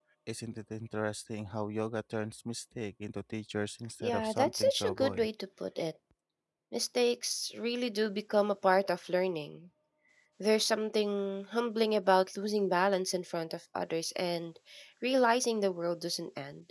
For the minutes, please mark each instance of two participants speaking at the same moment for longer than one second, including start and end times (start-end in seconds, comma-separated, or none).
4.0-5.3